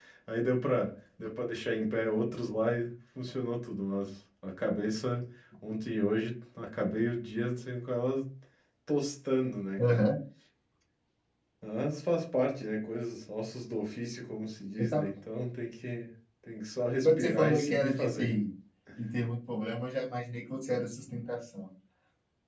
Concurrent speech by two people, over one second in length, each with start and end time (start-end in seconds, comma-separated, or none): 17.0-18.5